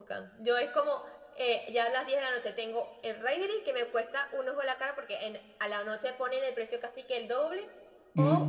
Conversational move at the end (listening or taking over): listening